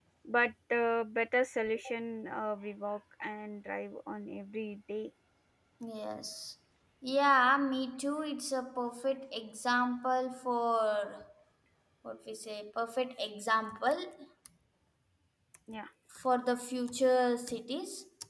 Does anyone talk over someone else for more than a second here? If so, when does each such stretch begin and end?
none

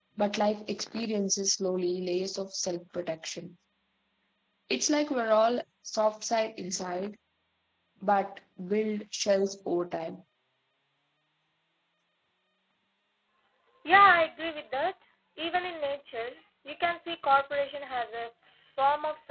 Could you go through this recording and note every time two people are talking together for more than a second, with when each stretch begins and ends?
none

